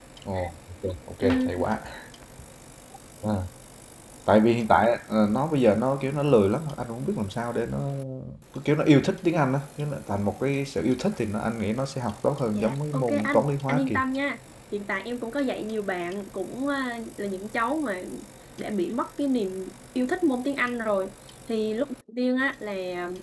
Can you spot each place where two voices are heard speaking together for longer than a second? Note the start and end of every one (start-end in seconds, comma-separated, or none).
12.5-14.0